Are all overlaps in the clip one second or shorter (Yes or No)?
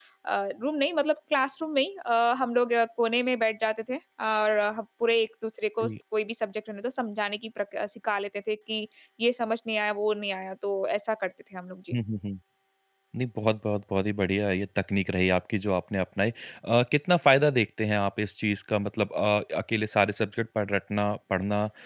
Yes